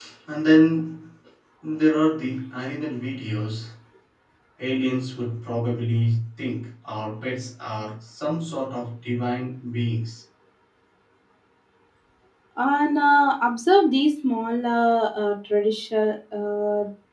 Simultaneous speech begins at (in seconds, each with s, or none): none